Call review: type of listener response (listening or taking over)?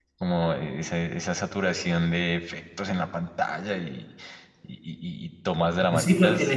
taking over